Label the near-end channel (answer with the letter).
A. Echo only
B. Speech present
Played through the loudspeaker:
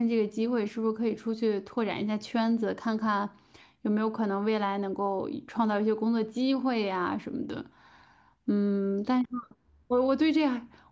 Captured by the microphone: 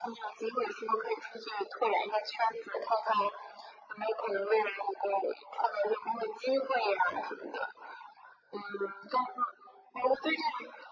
A